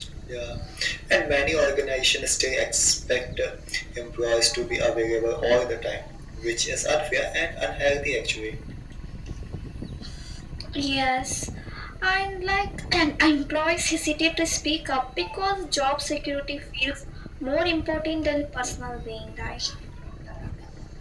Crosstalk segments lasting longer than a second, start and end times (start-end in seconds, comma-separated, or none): none